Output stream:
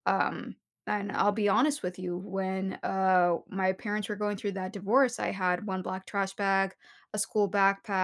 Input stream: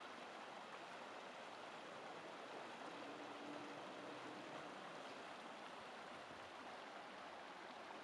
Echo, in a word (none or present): none